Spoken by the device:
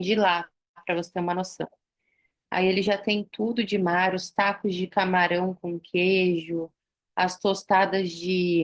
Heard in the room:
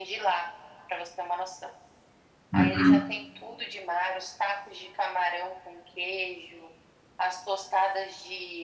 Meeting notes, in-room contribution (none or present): present